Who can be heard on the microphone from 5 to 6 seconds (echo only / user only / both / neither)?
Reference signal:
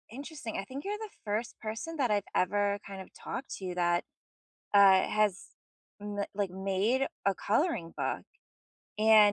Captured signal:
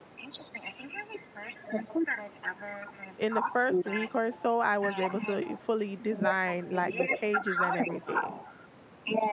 both